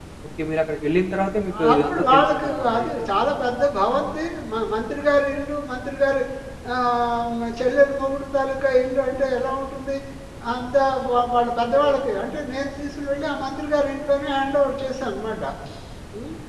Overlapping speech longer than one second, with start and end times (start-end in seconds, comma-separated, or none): 1.7-3.0